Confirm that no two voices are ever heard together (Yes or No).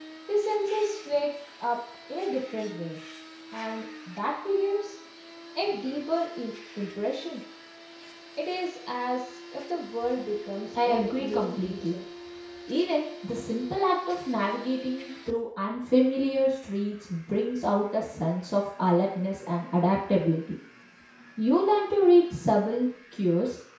No